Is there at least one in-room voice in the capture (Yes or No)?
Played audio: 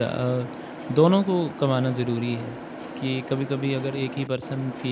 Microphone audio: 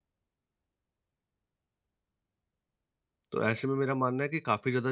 Yes